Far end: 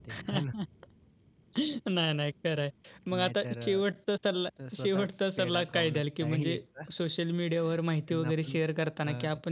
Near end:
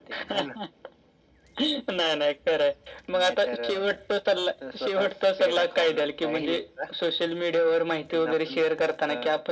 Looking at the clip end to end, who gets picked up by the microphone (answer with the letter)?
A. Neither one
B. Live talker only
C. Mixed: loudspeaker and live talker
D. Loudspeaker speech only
D